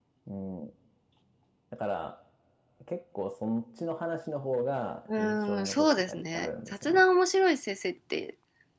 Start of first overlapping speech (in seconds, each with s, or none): 5.1 s